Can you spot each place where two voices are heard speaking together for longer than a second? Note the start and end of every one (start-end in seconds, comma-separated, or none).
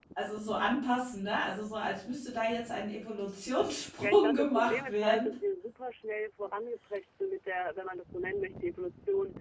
4.0-5.3